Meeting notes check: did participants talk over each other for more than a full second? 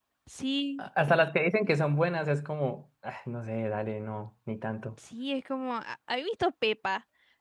No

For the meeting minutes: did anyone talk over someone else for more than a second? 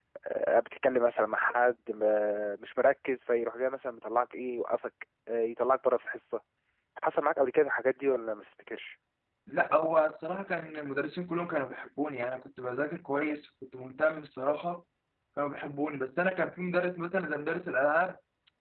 No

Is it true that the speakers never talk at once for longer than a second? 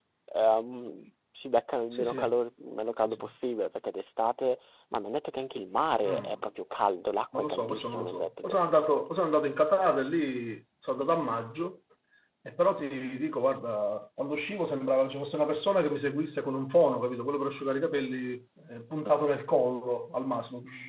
No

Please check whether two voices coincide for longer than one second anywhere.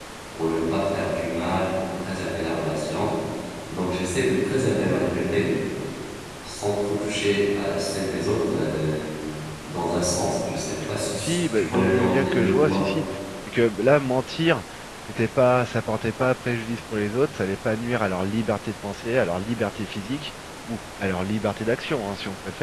Yes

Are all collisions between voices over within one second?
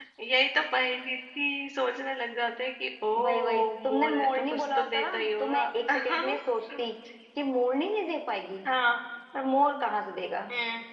No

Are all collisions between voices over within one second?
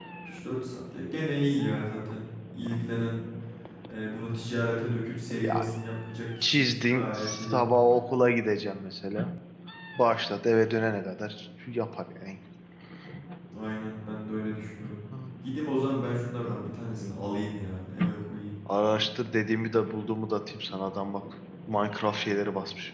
No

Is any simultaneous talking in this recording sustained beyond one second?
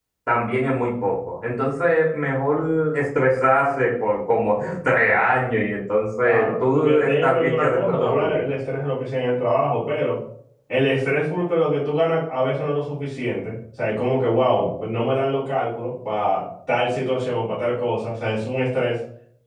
Yes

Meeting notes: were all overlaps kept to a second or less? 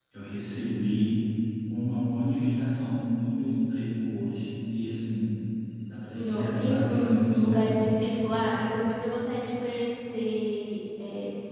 No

